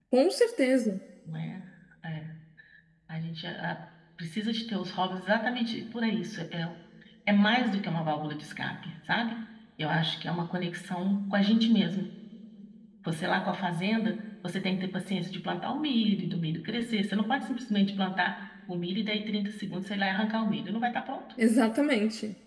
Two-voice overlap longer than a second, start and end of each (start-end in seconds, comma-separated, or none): none